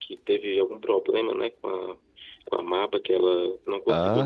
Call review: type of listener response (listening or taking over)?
taking over